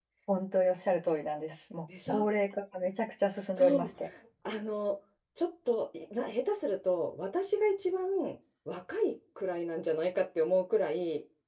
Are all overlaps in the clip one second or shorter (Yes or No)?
Yes